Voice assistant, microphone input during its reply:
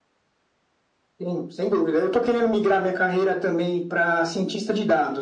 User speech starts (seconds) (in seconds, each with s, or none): none